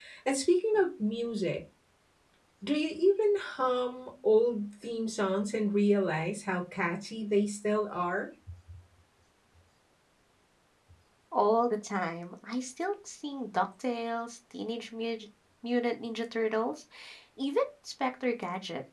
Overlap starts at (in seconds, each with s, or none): none